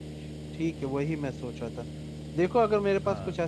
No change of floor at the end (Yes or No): Yes